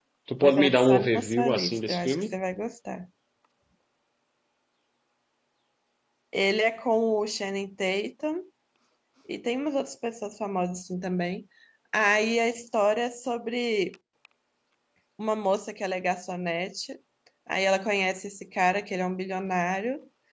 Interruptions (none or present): present